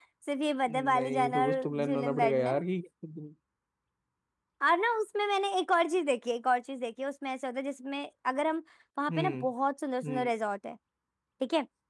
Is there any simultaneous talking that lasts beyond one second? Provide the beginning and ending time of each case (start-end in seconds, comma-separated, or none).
0.9-2.5